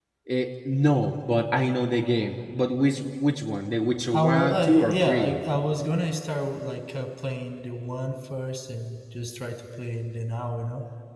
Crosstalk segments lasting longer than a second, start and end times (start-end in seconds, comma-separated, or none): 4.1-5.4